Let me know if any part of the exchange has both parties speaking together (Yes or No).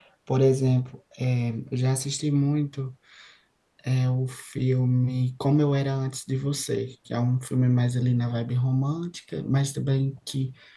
No